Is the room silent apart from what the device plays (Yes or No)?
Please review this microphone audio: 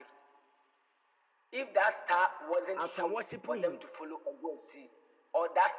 No